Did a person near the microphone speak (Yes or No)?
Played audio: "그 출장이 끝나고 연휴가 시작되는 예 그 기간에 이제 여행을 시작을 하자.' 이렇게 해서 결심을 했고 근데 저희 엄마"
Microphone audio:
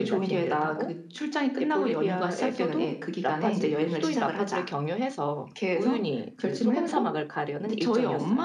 Yes